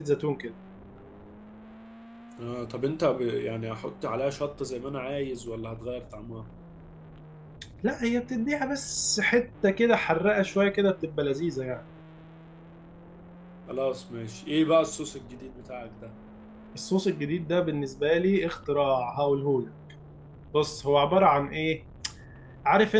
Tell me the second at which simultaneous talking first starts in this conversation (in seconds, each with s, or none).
none